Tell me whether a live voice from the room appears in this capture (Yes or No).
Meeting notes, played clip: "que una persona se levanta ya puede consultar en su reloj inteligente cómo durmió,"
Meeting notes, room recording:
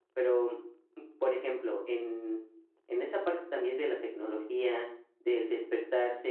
Yes